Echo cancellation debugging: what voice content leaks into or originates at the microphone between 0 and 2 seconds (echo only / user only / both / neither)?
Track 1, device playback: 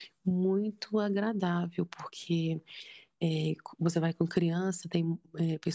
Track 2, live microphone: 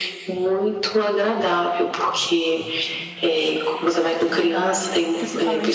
echo only